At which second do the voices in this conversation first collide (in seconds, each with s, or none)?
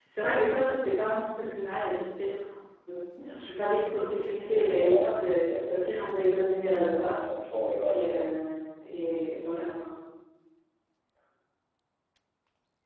4.5 s